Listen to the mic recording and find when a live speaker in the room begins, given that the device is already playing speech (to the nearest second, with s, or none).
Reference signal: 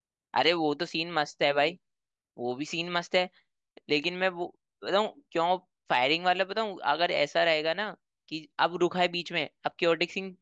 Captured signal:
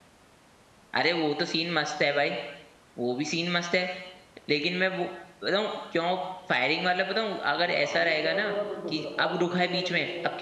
8 s